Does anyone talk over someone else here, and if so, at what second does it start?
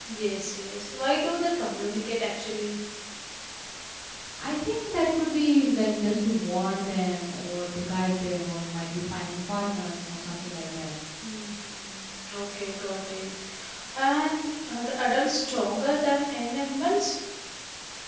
none

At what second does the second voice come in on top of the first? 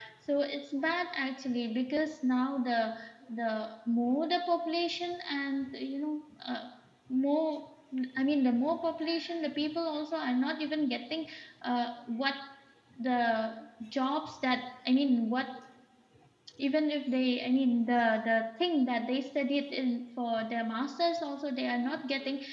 none

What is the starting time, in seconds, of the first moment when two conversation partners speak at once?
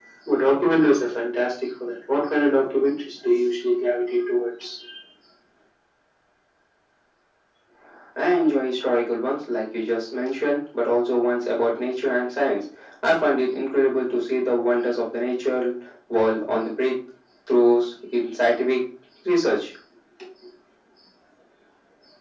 none

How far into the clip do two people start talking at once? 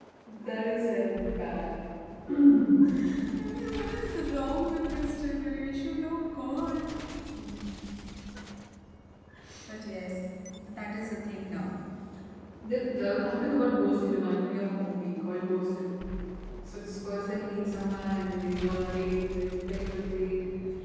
none

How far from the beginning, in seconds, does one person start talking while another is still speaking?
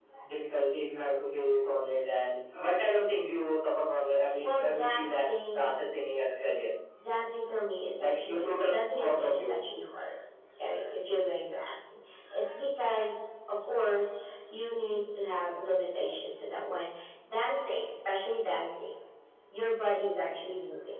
4.4 s

